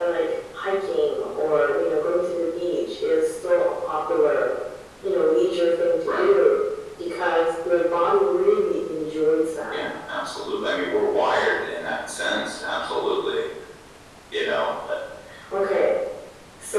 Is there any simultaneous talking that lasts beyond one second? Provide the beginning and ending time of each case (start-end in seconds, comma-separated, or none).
none